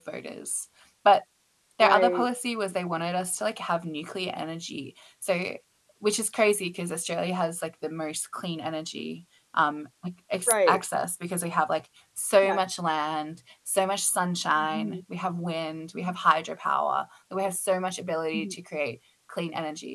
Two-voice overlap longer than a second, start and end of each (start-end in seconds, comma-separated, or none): none